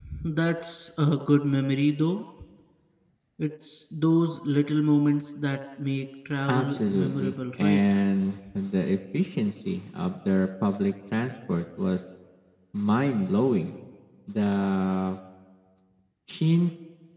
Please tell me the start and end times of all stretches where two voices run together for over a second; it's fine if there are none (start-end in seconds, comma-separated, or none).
6.5-7.9